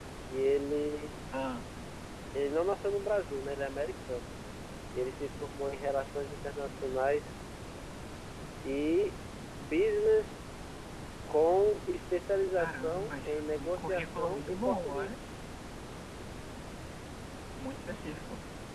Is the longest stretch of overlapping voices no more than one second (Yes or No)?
No